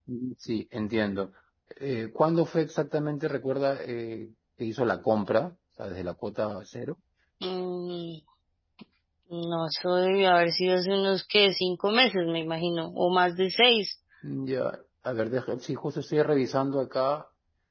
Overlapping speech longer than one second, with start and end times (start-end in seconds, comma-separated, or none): none